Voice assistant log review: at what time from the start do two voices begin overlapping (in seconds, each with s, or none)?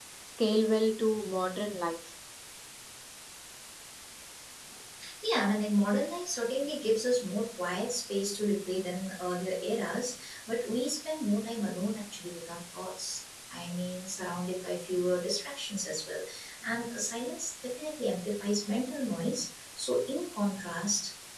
none